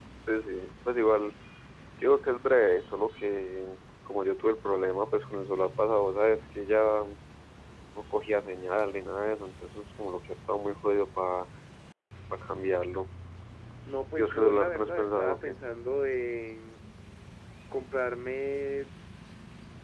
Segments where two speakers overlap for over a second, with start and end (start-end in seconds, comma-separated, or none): 14.2-15.5